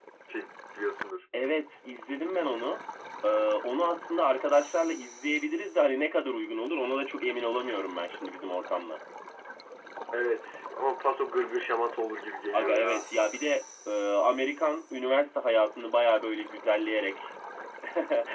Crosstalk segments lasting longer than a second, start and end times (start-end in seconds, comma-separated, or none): none